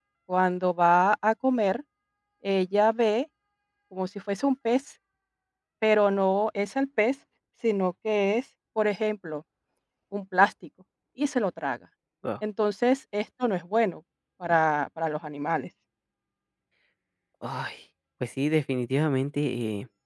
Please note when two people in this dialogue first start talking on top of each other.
none

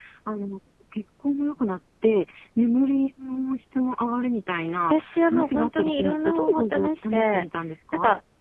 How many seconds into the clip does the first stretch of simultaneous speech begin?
5 s

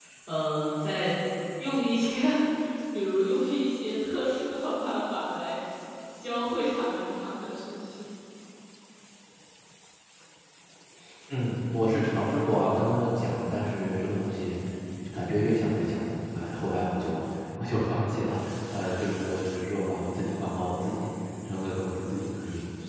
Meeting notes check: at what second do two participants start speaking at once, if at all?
none

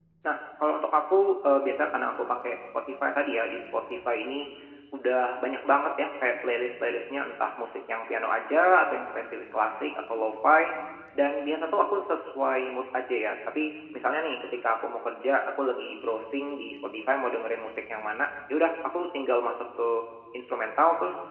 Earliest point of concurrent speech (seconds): none

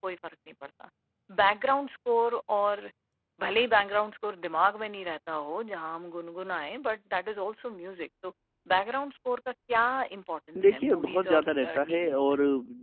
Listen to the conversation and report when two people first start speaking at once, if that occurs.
11 s

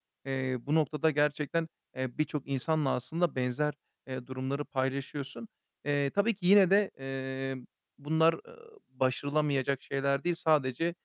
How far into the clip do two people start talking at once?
none

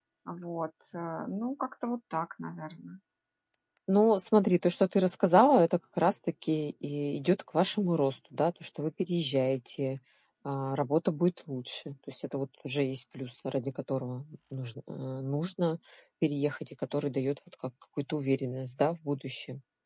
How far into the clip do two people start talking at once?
none

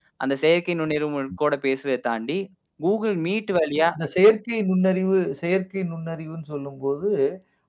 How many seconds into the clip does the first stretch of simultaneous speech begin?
none

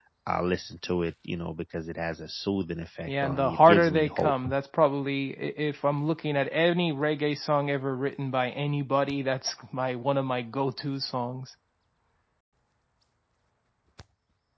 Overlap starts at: 3 s

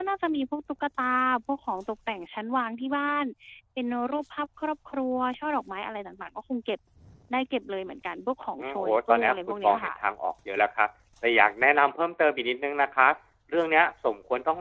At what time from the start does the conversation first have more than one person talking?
9 s

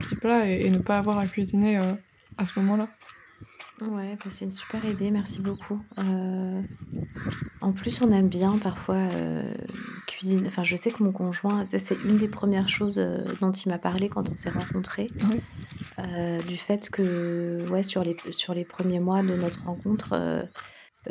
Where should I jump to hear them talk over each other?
none

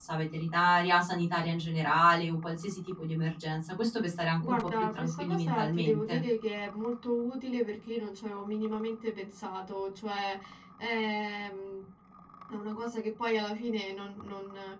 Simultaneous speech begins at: 4 s

